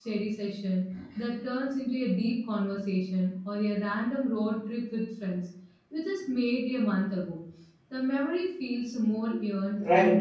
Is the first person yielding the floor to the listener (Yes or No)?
Yes